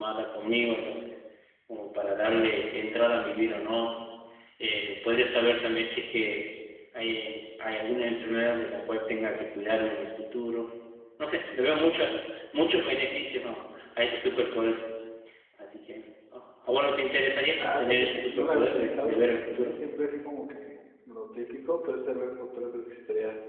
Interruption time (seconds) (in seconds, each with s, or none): 17.6 s